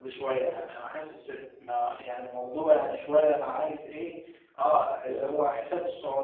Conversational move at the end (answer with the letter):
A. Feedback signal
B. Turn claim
A